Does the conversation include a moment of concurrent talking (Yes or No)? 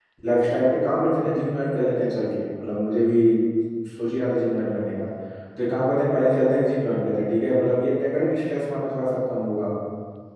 No